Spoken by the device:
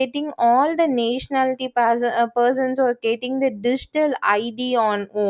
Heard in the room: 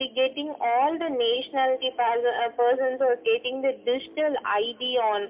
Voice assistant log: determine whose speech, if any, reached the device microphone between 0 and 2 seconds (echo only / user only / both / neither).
echo only